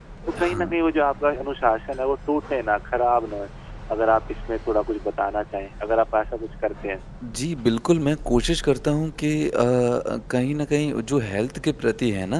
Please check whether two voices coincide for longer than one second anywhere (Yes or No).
No